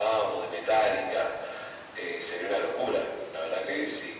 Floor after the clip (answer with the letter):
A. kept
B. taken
B